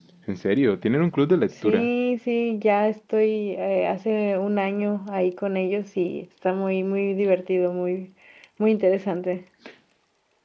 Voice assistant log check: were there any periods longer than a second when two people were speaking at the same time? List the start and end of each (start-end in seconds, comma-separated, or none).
none